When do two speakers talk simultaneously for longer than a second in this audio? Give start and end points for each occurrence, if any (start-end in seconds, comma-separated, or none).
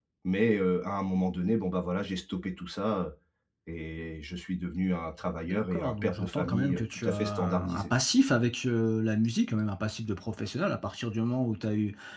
5.4-7.9